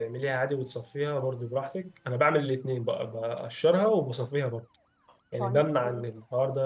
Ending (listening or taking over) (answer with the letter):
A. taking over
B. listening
B